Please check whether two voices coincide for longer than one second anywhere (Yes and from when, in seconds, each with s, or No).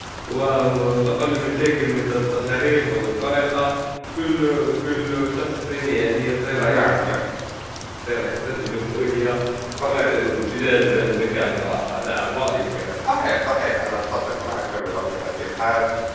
No